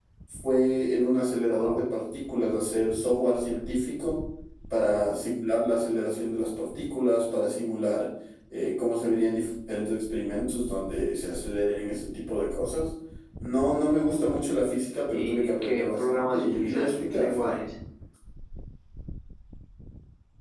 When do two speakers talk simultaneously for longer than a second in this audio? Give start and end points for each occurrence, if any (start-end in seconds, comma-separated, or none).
15.1-17.6